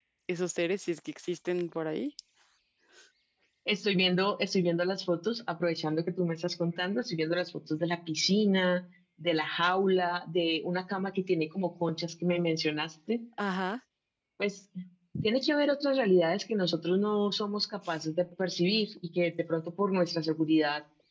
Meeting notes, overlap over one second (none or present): none